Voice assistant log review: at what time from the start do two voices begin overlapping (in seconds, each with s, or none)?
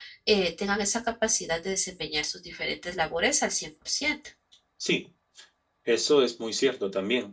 none